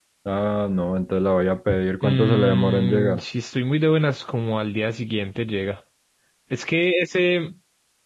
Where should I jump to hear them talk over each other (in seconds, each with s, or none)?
2.0 s